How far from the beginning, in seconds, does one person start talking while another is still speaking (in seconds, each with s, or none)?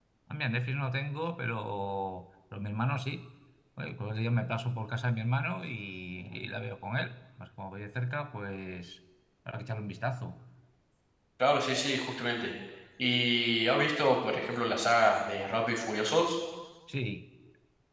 none